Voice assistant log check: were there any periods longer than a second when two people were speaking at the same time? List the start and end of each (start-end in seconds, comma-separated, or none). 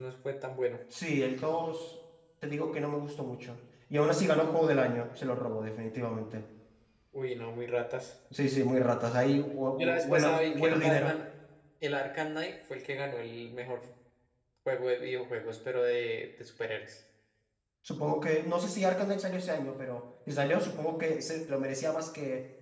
9.7-11.1